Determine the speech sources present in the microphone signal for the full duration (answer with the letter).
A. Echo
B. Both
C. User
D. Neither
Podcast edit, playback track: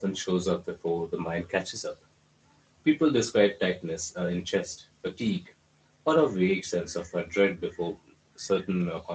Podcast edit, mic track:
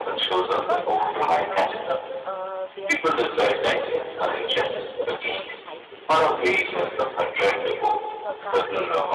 B